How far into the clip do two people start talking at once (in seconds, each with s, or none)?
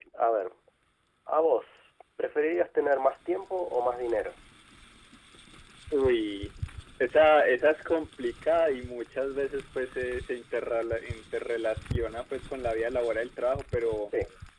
none